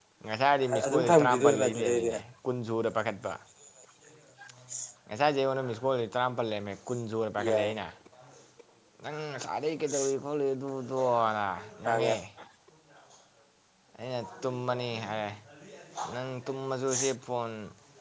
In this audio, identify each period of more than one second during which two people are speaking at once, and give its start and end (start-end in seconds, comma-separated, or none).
0.9-2.1